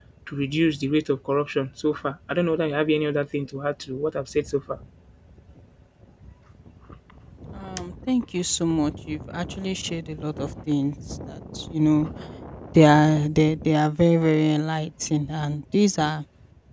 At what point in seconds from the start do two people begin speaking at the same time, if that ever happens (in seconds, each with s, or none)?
none